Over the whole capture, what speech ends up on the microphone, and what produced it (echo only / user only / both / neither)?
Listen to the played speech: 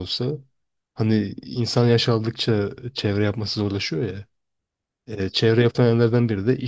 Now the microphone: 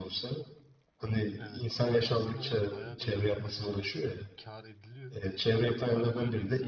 both